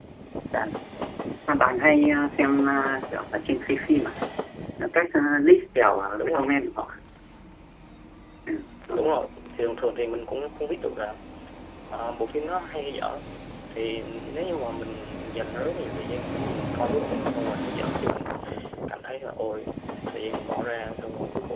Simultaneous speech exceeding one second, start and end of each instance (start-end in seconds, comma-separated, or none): none